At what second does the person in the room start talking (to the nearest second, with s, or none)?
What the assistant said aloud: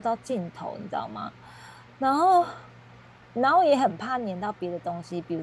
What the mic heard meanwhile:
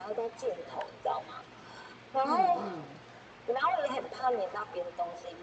2 s